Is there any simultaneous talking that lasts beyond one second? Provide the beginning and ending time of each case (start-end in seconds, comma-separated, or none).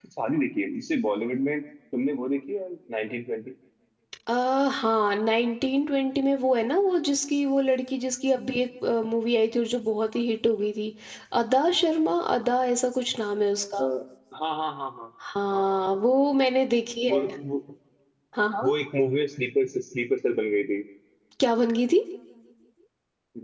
none